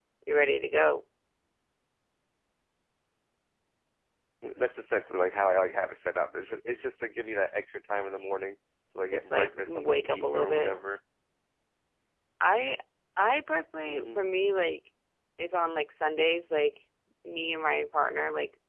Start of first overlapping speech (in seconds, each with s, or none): 9.1 s